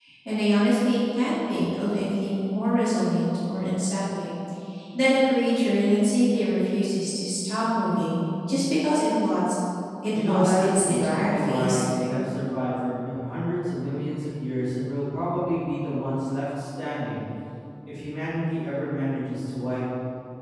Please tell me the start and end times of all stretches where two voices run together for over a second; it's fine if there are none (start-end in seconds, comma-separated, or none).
10.1-11.9